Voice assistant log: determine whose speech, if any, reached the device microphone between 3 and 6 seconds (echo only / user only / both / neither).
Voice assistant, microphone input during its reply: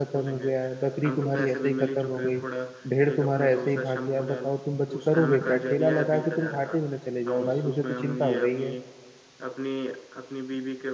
both